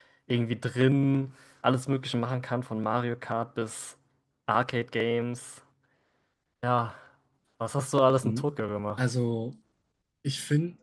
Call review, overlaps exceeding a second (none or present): none